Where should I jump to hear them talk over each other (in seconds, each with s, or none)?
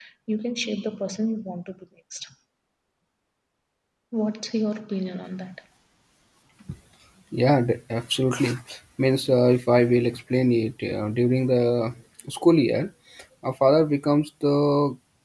none